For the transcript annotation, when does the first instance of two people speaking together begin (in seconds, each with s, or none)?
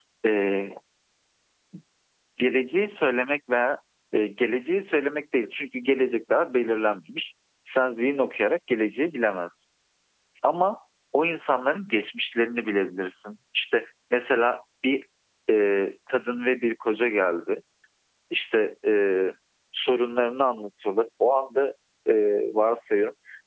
none